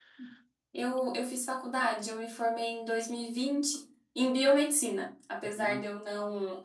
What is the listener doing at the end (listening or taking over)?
listening